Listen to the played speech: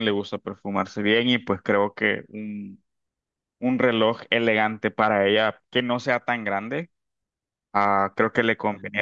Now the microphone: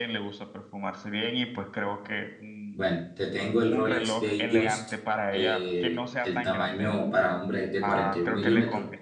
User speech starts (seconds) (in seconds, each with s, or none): 2.7 s